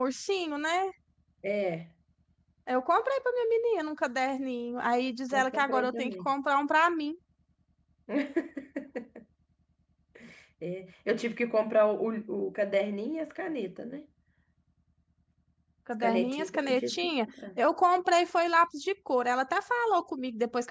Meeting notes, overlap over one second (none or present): present